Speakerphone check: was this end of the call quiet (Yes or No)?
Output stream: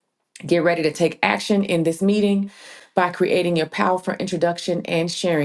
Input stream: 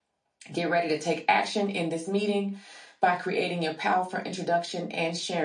Yes